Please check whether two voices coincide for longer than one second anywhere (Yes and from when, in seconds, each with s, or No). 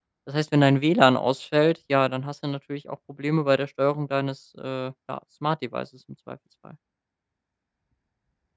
No